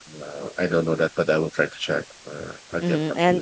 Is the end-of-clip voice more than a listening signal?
Yes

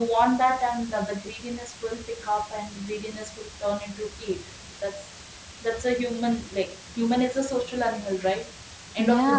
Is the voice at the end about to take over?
No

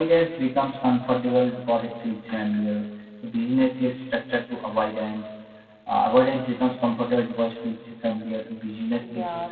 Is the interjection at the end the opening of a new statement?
Yes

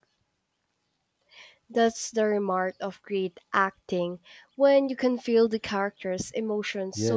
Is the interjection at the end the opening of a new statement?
Yes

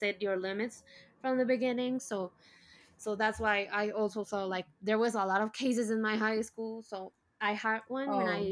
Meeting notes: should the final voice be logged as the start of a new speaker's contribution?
No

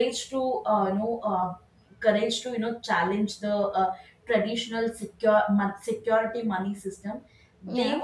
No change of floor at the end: Yes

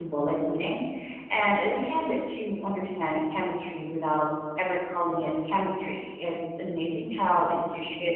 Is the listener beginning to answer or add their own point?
No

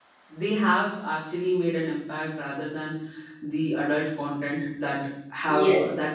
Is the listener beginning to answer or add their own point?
No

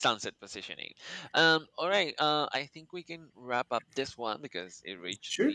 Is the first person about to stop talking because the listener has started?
Yes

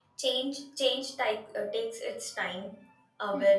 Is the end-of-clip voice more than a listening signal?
No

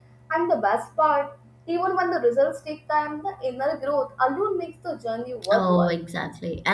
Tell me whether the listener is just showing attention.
No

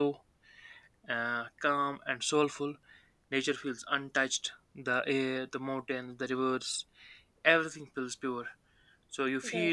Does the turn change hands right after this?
No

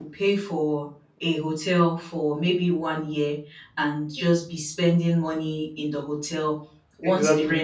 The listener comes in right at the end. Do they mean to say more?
No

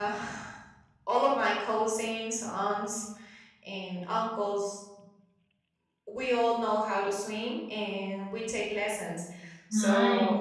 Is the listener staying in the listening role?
Yes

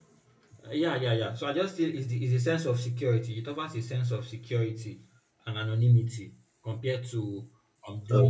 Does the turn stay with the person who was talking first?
Yes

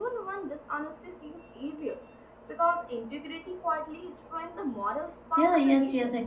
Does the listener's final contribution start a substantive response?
Yes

